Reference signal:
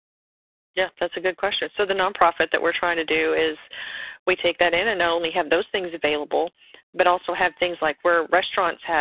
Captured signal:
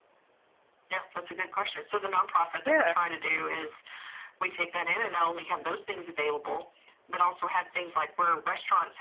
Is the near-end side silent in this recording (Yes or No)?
No